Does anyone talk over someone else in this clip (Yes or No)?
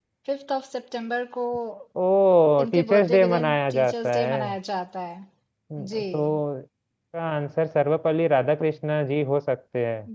Yes